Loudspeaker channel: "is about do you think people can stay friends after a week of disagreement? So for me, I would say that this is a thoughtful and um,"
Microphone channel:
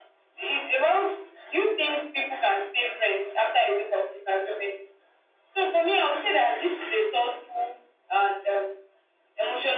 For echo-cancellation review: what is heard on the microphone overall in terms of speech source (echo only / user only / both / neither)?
echo only